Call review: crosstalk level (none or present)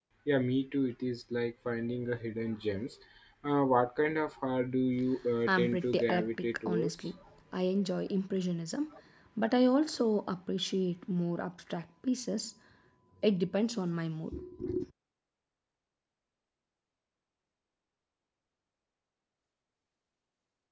present